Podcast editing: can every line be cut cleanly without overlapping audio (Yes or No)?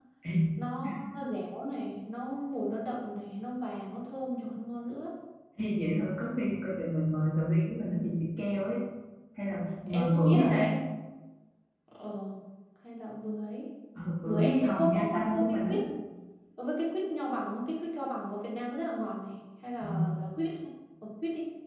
No